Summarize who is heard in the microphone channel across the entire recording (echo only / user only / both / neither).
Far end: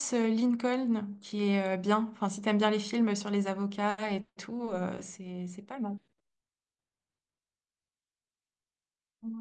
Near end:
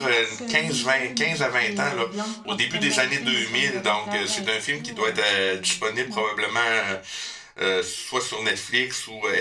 both